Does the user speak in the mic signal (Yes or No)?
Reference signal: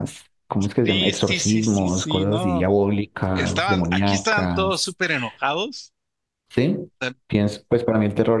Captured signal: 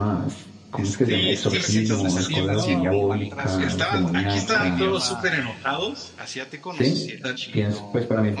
Yes